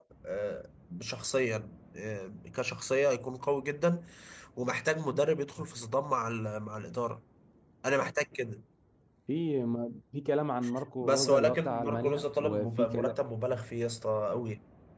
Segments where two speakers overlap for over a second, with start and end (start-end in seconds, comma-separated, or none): 11.0-13.1